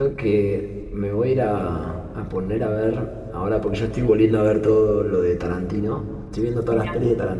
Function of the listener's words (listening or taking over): listening